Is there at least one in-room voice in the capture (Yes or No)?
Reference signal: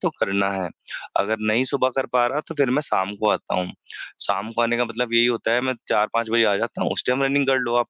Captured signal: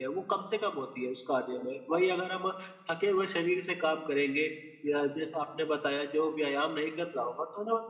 Yes